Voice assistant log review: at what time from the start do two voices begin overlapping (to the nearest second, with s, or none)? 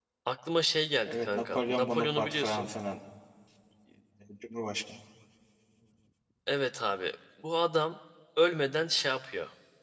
1 s